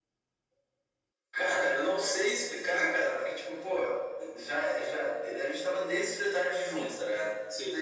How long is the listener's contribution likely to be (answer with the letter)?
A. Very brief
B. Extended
A